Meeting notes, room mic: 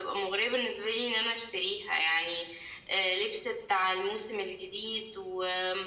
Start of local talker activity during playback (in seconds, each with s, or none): none